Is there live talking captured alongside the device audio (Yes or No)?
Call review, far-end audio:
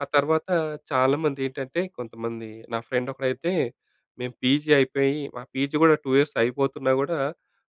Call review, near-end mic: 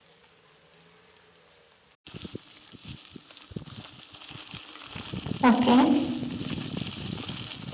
Yes